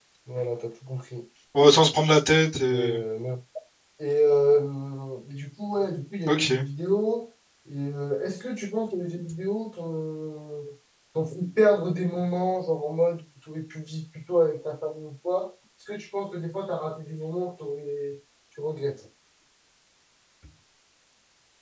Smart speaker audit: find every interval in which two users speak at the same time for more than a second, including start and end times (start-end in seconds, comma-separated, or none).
none